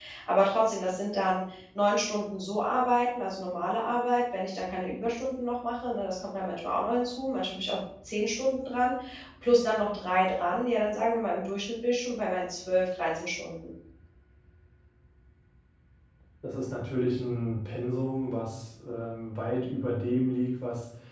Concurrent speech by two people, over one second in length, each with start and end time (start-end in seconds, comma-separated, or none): none